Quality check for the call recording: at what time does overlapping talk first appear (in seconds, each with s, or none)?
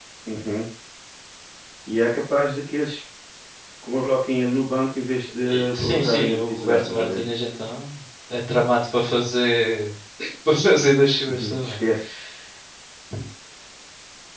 5.4 s